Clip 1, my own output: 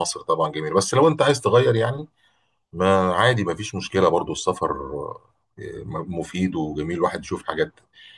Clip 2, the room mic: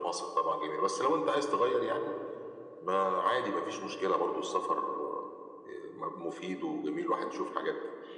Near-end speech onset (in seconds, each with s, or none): none